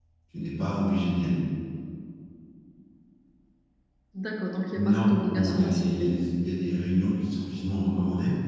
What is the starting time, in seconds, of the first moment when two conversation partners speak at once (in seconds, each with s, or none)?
4.7 s